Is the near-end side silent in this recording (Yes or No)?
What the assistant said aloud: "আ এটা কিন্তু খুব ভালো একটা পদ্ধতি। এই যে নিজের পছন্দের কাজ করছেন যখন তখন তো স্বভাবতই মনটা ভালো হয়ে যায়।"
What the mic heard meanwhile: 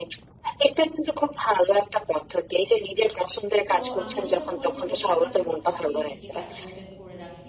No